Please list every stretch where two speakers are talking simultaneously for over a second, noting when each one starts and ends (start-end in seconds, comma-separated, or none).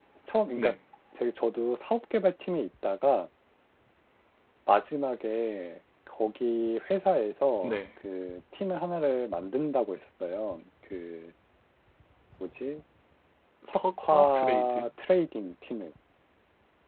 13.7-14.9